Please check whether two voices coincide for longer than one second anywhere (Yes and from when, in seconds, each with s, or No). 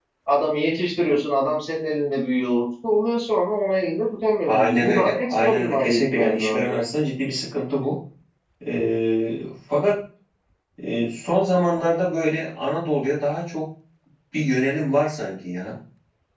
Yes, from 4.5 s